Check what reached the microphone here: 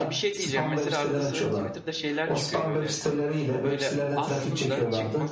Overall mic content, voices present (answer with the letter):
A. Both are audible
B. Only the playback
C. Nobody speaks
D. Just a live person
A